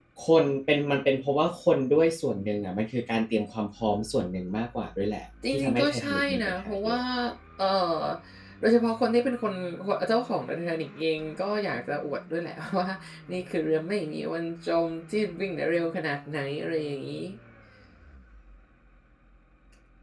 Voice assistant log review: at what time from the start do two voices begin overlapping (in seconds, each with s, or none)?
5.4 s